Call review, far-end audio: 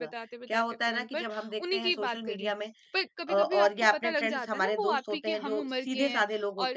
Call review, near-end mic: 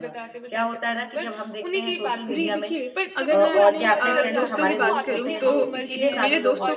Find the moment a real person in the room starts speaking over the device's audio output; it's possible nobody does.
2.3 s

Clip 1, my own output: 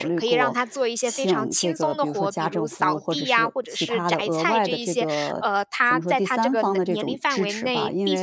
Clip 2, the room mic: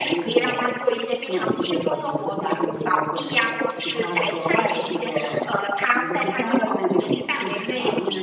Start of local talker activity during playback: none

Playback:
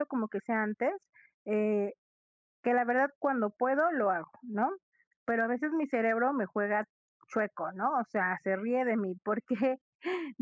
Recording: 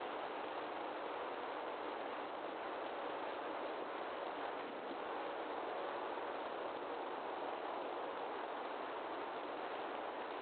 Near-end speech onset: none

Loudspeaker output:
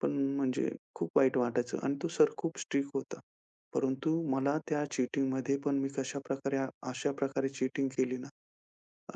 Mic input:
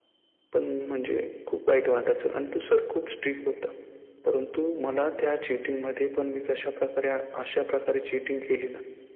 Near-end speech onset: none

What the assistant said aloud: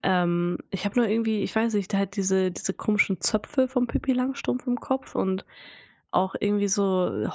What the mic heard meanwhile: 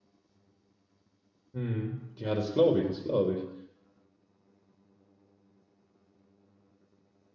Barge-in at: 1.5 s

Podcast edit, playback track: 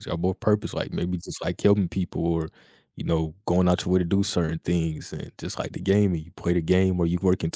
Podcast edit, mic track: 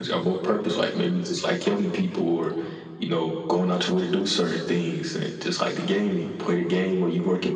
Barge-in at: none

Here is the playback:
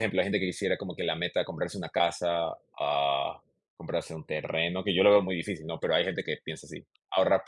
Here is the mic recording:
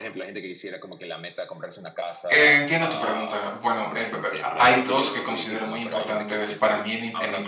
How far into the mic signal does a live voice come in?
2.3 s

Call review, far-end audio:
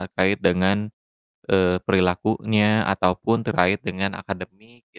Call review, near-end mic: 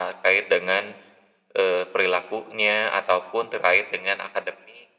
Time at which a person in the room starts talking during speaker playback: none

